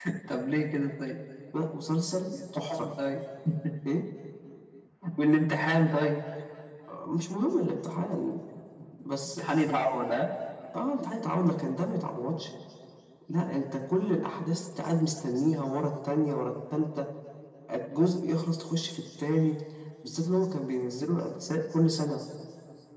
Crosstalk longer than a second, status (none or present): none